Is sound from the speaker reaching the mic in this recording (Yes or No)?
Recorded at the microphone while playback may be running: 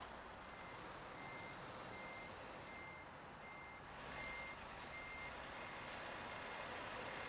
No